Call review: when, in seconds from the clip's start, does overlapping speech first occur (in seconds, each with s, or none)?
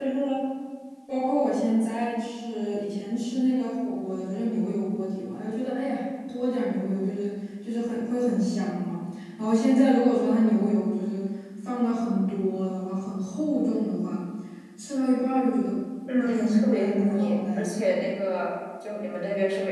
16.2 s